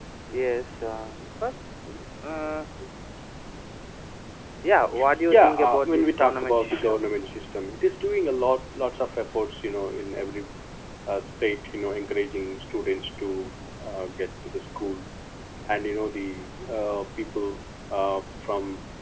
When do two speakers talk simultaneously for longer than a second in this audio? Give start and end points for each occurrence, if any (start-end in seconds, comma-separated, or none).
5.3-7.1